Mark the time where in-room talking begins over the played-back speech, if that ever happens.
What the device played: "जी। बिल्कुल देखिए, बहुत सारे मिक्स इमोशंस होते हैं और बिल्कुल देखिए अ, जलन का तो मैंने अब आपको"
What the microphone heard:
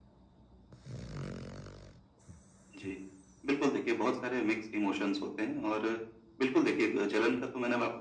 none

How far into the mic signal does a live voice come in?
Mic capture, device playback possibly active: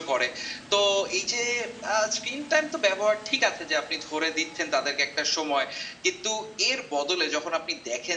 none

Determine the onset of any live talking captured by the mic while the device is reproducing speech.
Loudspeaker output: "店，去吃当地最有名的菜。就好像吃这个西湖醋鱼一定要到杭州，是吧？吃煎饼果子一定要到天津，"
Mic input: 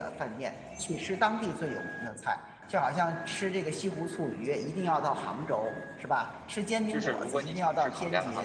6.9 s

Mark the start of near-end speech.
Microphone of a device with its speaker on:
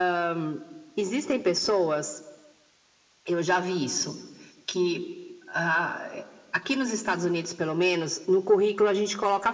none

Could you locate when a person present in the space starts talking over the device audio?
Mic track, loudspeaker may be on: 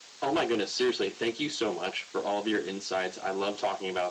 none

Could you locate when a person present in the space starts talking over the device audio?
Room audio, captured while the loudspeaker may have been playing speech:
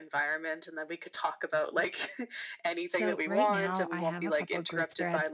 2.9 s

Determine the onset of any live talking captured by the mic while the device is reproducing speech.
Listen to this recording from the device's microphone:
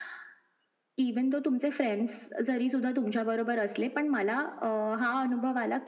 none

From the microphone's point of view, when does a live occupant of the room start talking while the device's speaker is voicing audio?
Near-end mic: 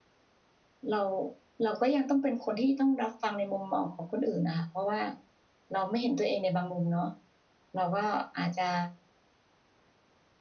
0.9 s

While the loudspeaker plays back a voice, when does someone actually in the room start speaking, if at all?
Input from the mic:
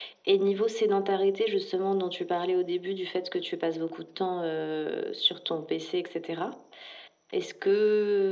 none

